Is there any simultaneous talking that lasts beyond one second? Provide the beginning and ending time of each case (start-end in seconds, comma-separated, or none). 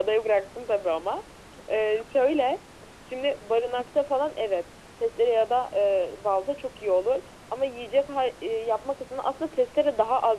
none